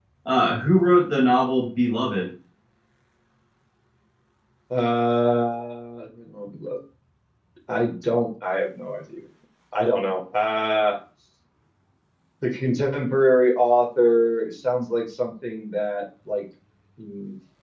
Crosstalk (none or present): none